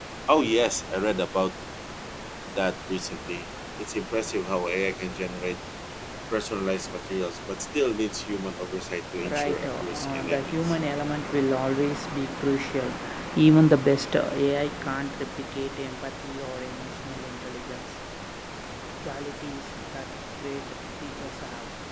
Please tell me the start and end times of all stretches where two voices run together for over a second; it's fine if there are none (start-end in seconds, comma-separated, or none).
9.3-10.8